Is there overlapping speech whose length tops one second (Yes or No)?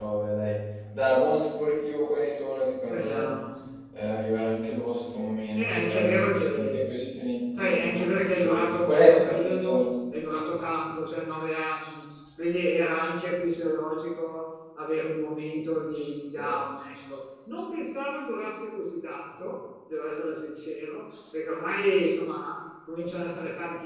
Yes